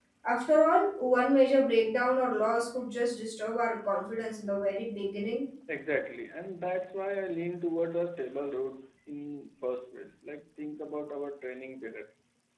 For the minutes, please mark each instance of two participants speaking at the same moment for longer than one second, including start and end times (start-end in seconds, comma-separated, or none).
none